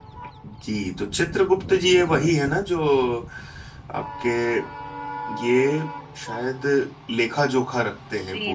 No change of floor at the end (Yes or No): No